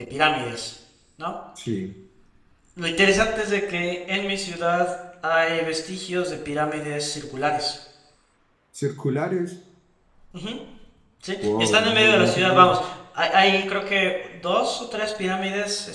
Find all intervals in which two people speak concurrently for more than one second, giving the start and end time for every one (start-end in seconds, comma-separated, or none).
11.4-12.7